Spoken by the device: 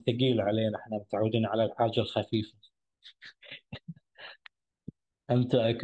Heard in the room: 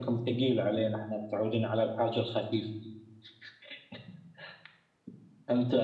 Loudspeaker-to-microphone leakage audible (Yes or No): Yes